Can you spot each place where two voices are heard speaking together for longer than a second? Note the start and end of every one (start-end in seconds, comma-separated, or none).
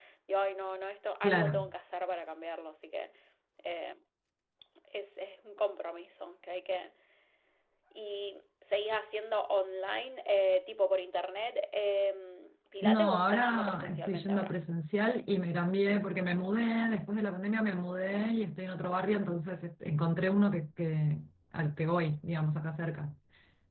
12.8-14.5